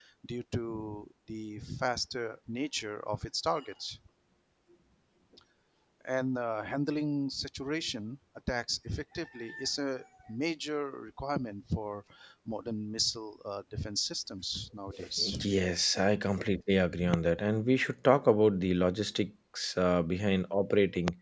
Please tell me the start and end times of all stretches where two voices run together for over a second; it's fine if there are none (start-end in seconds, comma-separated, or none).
none